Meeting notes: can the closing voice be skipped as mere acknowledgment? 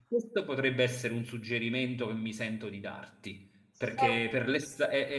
Yes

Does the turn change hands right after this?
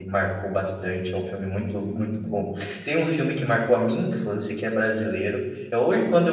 No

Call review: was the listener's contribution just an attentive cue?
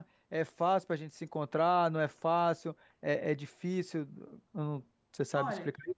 No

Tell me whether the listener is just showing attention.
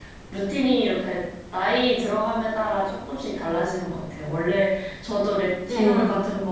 Yes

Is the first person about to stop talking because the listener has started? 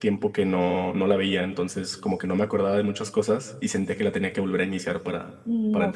Yes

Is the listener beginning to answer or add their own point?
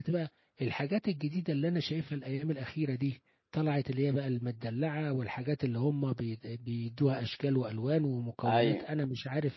No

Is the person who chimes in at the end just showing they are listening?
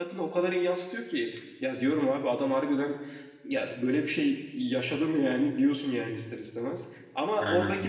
Yes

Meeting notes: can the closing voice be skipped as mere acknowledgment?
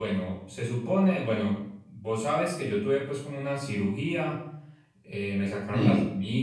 Yes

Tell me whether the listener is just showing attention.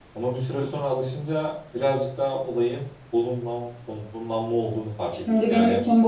No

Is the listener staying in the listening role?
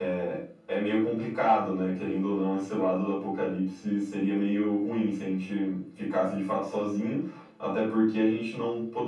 Yes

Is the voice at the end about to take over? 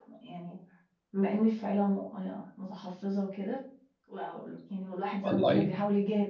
No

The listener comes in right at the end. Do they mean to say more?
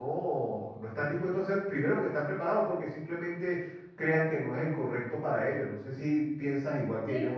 Yes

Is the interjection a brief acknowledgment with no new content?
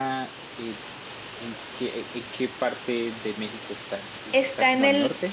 No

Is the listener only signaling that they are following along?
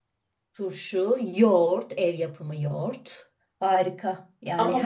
No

